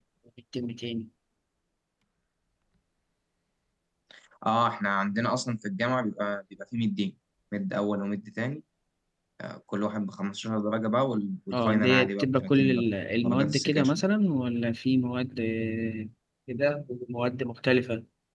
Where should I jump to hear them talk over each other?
11.5 s

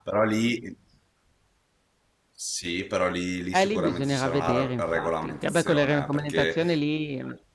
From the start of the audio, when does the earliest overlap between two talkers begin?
3.5 s

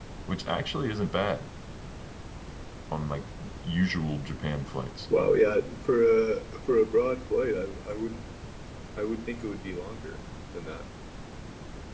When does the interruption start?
none

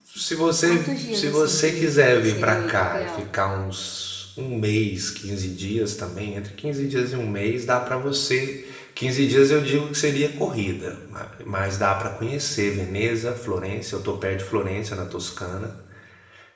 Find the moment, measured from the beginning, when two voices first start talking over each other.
0.7 s

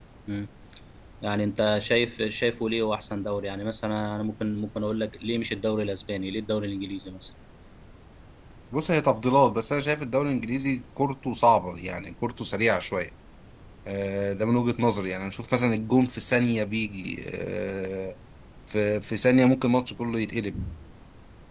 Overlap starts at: none

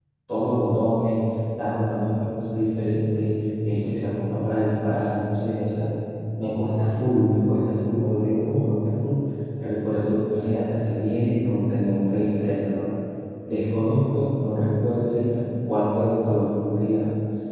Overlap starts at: none

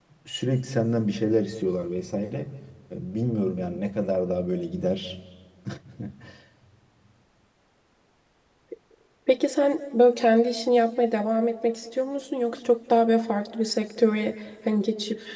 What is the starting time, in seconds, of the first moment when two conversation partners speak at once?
none

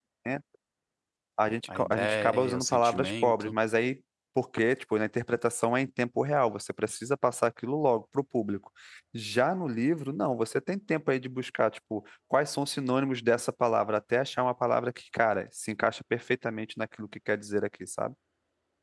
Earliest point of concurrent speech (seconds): 1.8 s

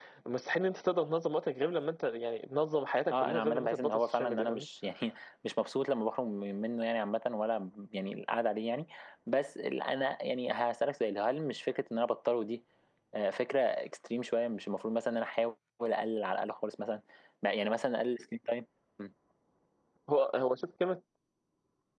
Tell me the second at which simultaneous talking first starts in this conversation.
3.0 s

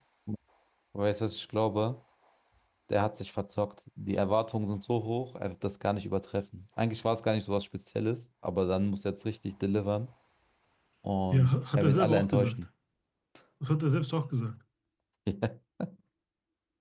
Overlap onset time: 11.3 s

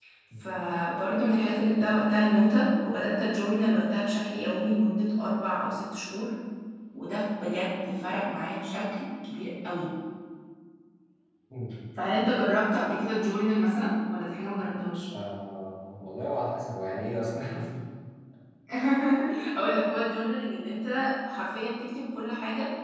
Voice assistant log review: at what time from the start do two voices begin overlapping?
none

